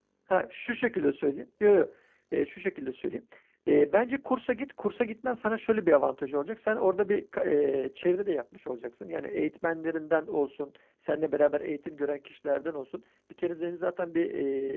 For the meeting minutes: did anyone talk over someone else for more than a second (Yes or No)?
No